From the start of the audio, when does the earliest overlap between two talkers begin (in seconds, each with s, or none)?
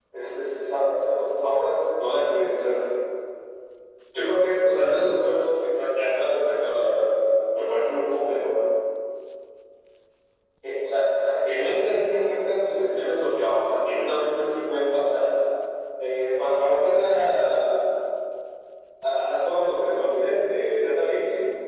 none